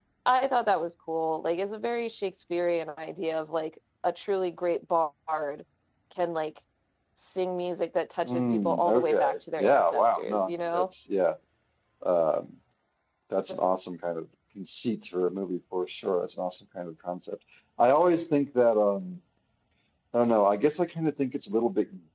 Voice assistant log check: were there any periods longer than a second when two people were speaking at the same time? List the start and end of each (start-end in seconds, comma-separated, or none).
8.3-10.8